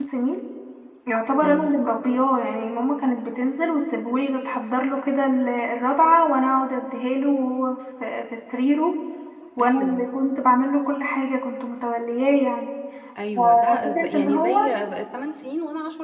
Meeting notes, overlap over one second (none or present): present